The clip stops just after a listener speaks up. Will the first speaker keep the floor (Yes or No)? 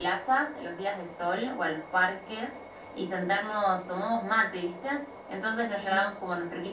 Yes